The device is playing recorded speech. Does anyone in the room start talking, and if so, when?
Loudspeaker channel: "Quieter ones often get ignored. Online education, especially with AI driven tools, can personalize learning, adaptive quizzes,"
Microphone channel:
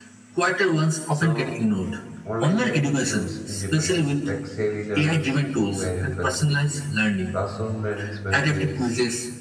1.1 s

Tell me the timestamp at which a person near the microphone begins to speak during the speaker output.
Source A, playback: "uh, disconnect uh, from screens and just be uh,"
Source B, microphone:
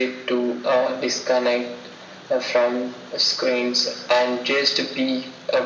none

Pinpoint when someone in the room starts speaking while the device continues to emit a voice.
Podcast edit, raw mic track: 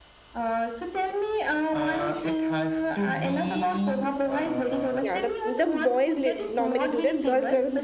5.0 s

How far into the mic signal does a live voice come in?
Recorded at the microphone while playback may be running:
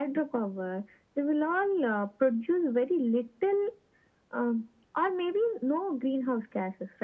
none

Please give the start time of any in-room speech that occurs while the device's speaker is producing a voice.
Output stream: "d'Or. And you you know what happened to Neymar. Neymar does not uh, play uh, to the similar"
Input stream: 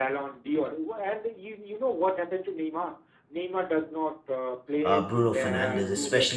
4.8 s

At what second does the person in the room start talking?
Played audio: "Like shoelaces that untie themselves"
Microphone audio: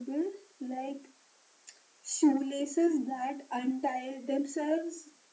none

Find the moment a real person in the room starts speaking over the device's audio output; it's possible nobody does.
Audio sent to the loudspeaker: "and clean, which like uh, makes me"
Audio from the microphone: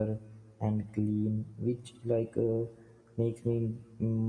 none

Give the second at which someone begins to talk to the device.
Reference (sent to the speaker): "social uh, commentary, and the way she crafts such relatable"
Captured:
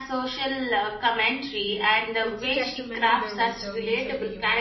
1.6 s

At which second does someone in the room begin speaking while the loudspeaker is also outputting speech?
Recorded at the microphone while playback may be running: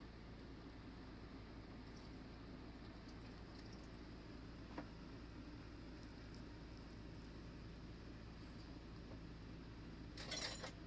none

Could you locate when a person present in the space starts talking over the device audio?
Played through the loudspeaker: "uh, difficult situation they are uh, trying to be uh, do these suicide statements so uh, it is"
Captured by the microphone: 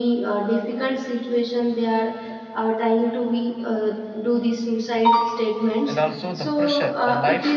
5.8 s

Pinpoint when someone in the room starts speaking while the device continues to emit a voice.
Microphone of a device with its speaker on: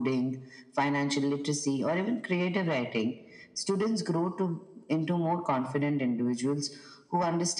none

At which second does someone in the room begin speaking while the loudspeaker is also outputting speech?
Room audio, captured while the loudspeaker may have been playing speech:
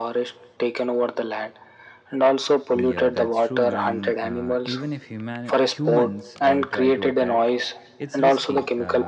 2.7 s

